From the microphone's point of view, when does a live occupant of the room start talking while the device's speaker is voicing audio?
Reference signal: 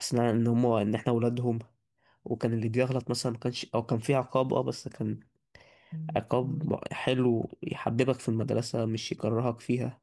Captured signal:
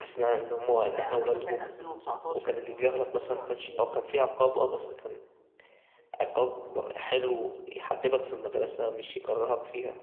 1 s

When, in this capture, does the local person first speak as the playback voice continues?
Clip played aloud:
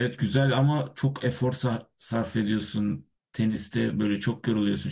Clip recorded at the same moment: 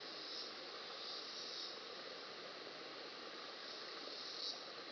none

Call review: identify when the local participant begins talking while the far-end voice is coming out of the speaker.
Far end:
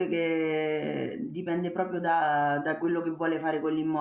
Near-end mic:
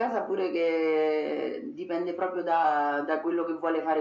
none

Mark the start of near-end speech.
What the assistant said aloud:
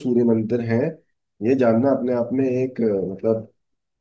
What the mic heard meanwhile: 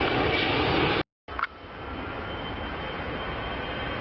none

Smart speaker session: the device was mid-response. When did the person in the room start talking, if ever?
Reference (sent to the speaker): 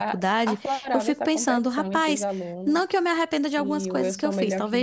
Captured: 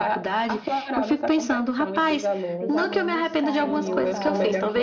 3 s

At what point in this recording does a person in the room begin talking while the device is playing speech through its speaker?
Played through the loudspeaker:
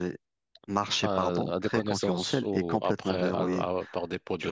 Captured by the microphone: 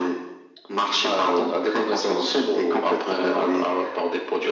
none

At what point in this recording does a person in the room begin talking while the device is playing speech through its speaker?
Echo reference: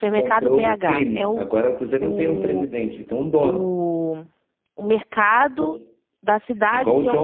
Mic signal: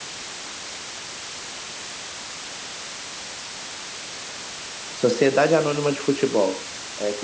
5 s

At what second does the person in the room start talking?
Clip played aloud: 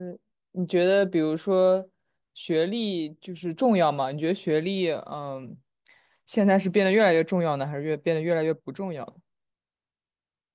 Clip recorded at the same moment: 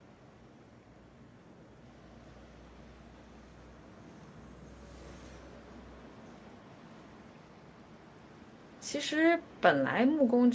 9 s

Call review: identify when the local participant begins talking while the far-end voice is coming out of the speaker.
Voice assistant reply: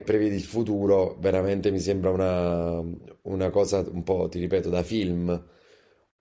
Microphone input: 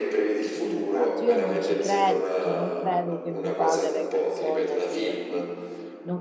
0 s

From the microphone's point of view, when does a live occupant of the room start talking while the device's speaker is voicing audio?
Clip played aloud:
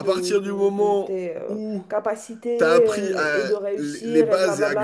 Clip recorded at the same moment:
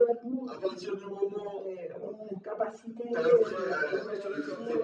3 s

